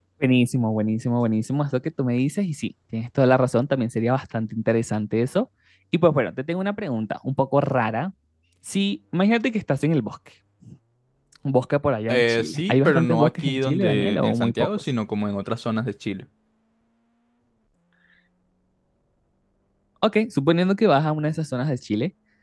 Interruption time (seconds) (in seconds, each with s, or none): 12.1 s